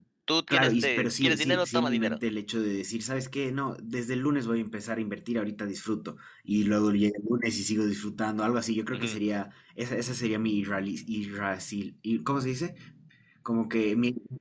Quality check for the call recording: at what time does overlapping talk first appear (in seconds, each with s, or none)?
0.5 s